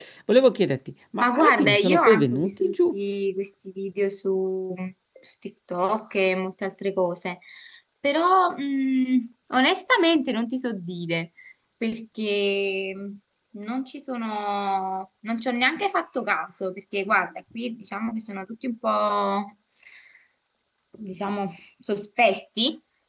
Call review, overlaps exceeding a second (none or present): present